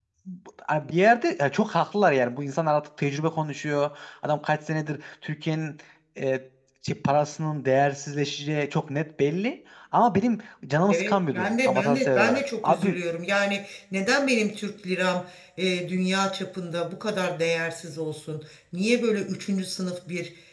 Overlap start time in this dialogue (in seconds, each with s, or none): 10.9 s